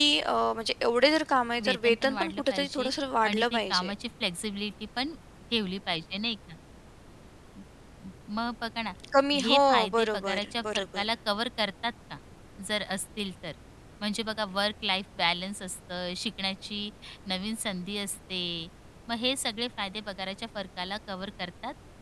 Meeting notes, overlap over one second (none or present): present